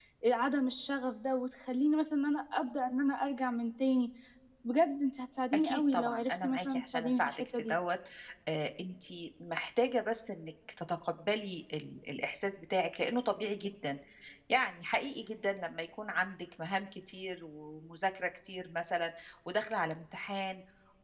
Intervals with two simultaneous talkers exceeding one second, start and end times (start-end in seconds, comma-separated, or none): 5.5-7.8